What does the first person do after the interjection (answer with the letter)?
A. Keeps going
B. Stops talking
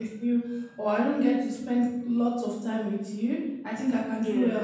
A